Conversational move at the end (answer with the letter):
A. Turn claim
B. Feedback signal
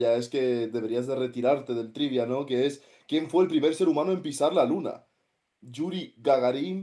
B